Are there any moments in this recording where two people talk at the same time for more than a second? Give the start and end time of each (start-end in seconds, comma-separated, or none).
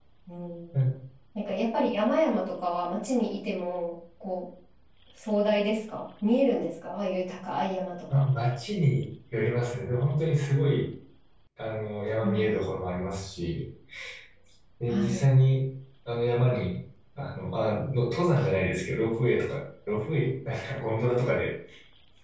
none